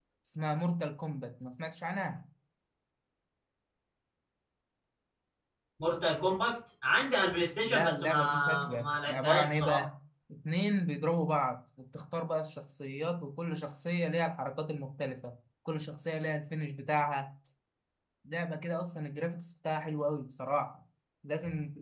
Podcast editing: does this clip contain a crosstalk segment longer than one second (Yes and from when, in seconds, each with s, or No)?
Yes, from 7.7 s